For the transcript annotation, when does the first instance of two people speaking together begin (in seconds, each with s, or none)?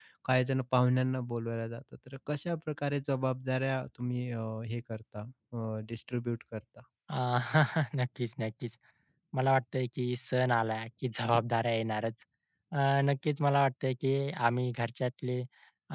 none